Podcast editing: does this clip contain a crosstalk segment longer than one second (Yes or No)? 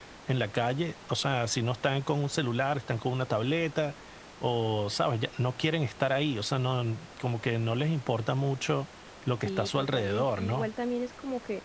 Yes